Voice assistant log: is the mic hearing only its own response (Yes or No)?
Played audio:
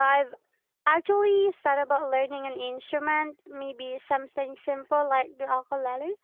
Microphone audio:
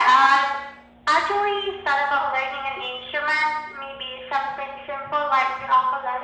Yes